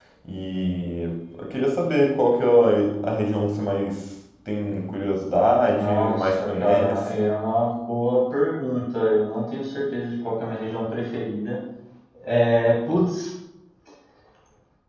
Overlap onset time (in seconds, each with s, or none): 5.7 s